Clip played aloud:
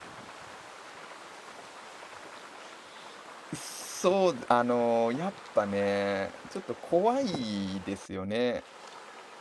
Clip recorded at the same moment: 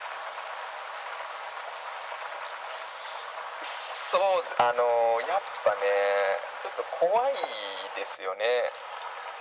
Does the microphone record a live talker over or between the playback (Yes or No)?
No